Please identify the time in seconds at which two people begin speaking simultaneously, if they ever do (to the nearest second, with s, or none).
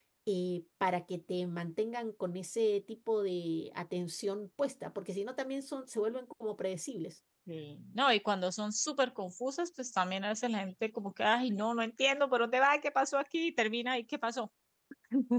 none